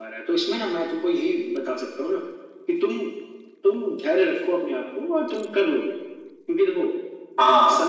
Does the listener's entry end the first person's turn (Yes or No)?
No